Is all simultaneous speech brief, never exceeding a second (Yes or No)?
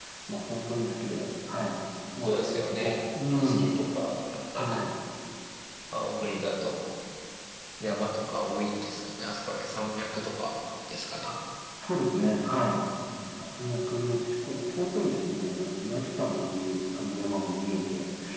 No